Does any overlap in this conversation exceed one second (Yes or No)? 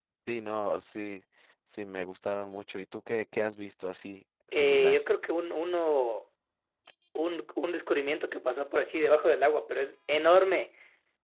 No